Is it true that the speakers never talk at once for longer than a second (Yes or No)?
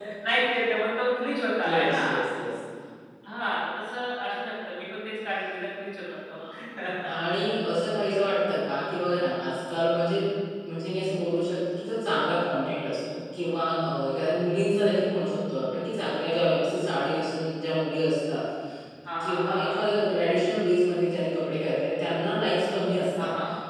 Yes